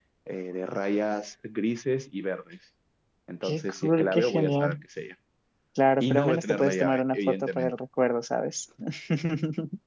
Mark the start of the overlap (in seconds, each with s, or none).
3.4 s